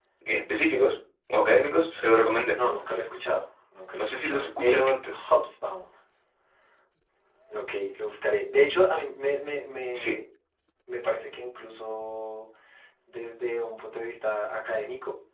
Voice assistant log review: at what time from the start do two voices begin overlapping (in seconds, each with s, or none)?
4.0 s